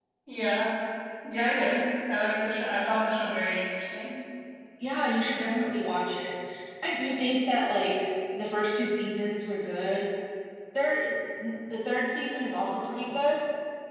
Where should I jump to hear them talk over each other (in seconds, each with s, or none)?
none